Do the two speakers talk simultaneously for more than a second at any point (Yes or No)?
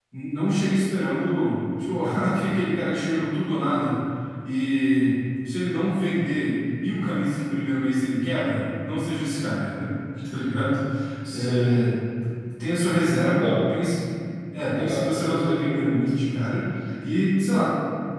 Yes